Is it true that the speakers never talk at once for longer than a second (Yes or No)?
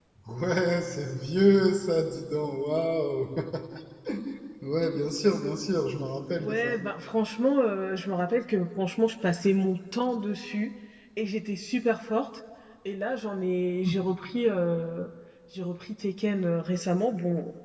Yes